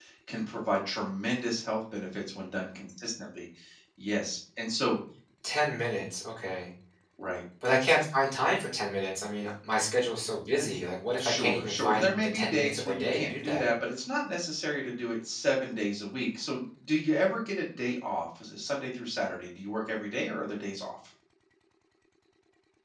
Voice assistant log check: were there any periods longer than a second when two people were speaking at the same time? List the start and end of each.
11.2-13.7

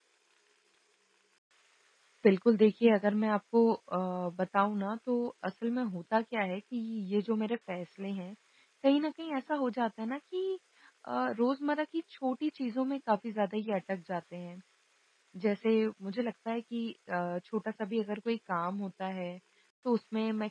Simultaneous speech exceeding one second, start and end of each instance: none

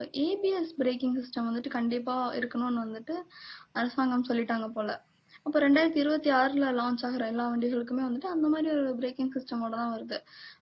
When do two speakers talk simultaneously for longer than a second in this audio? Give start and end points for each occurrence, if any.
none

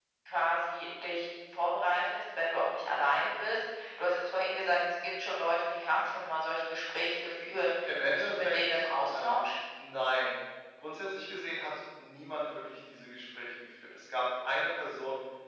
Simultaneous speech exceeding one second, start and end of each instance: 7.8-9.5

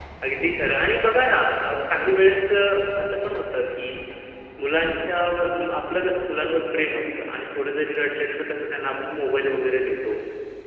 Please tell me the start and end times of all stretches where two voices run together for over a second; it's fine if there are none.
none

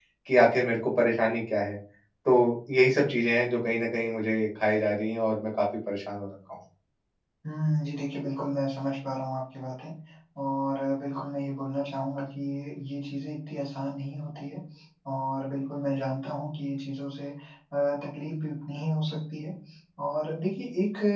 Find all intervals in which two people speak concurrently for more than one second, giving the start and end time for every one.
none

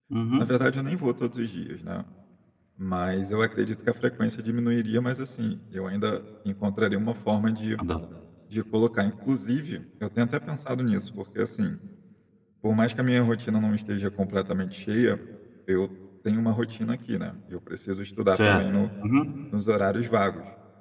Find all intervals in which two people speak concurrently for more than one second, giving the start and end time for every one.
none

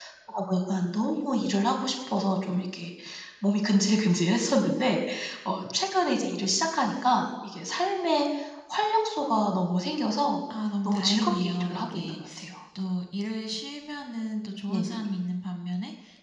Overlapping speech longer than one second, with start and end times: 10.8-12.2

